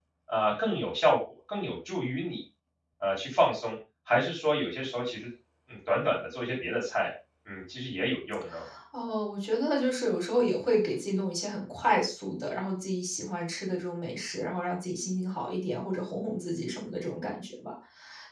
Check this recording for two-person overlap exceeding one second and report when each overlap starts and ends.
none

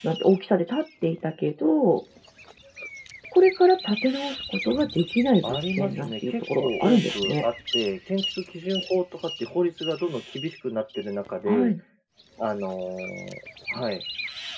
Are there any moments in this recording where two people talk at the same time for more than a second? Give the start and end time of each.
5.4-7.4

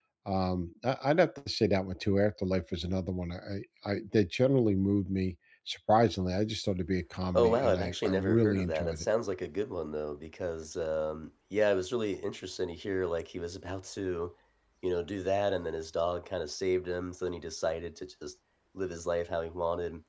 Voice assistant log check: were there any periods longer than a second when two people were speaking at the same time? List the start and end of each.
7.3-9.0

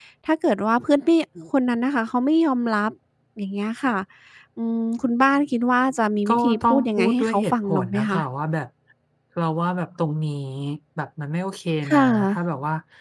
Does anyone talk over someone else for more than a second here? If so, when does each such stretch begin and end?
6.3-8.2

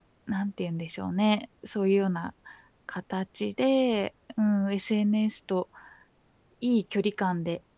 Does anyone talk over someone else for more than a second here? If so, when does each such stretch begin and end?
none

